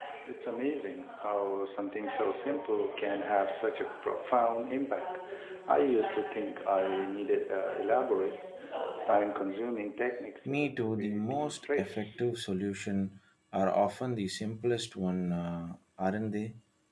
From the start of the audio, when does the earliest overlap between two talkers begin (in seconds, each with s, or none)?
10.4 s